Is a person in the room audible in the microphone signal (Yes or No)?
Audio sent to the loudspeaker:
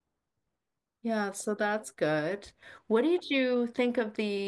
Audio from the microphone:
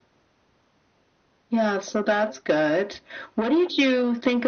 No